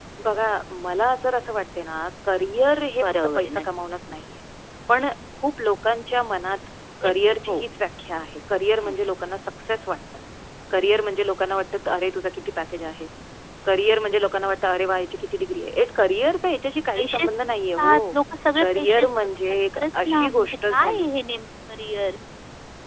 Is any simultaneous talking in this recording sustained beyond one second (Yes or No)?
Yes